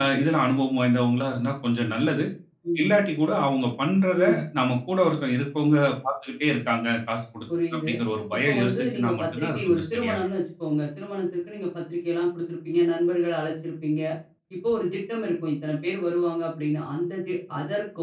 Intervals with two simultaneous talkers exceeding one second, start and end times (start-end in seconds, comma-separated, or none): 8.3-10.3